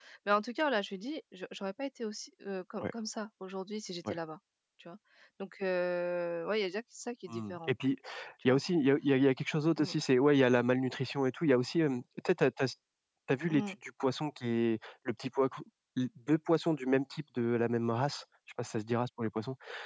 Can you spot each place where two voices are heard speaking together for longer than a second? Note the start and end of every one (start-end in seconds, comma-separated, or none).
none